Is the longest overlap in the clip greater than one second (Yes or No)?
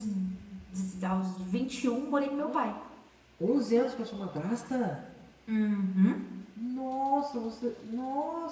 No